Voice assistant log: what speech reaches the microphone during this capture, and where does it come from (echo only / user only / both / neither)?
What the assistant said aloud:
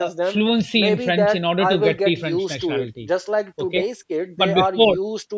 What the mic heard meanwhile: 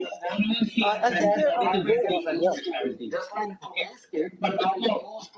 both